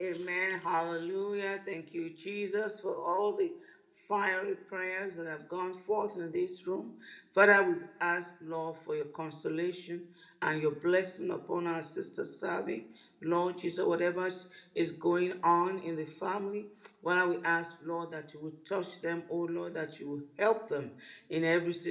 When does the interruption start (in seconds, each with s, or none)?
none